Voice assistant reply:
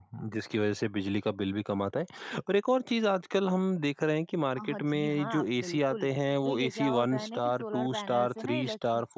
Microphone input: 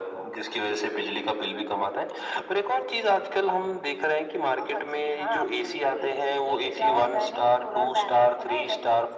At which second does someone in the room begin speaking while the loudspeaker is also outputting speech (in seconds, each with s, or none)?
none